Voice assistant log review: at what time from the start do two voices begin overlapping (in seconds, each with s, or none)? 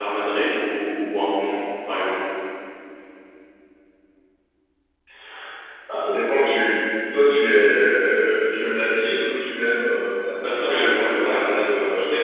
10.4 s